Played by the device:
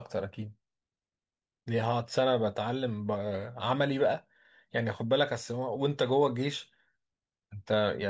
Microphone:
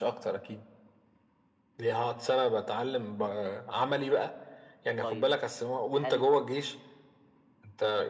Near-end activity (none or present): present